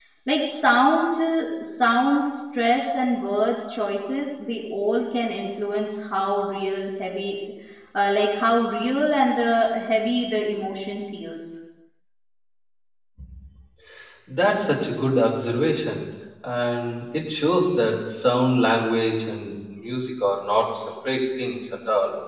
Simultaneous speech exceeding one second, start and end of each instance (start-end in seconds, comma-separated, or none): none